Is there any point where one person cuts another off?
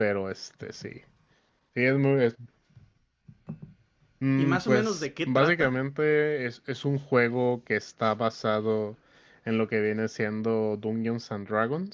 Yes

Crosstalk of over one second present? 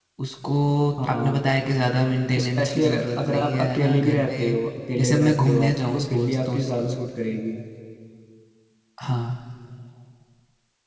Yes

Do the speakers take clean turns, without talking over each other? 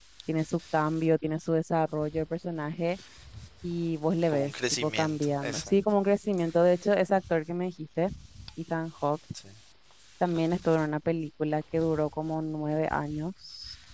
No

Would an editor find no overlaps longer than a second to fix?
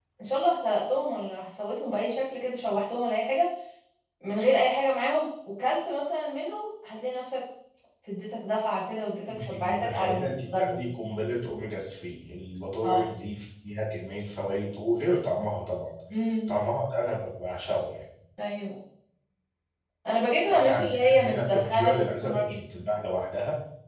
No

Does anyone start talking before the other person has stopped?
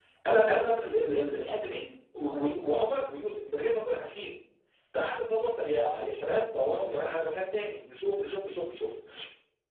No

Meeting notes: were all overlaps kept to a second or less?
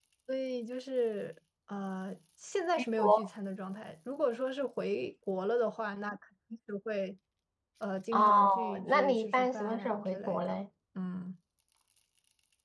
No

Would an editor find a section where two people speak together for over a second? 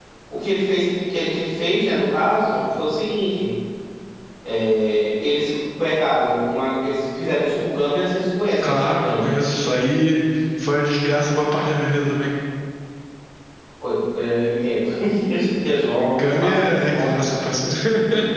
Yes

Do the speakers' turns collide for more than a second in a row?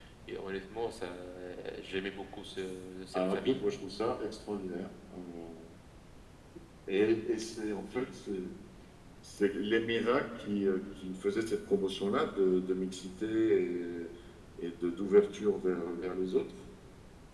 No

